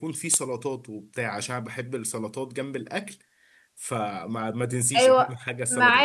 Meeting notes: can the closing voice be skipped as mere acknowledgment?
No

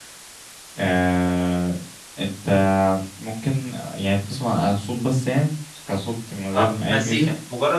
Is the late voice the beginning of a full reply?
Yes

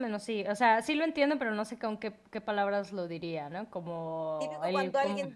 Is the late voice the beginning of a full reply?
Yes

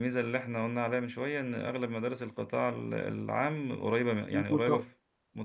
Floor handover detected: No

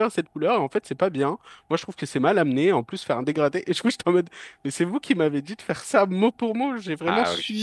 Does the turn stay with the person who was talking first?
Yes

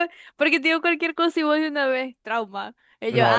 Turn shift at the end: Yes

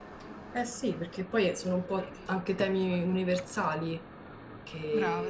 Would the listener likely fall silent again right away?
Yes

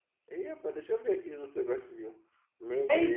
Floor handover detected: Yes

